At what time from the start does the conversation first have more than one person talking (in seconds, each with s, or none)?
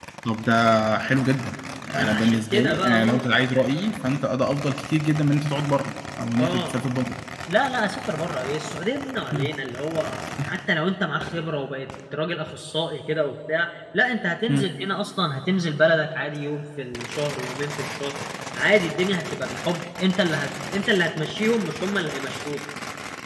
1.9 s